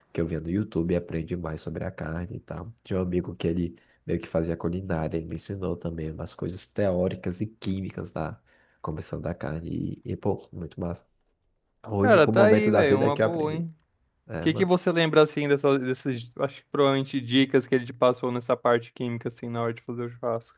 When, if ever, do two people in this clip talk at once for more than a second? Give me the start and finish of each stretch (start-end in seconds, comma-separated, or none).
12.0-13.6